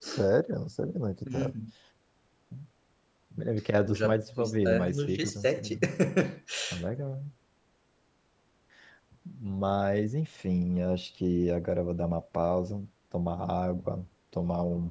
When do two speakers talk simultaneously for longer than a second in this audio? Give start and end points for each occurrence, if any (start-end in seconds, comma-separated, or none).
3.9-5.6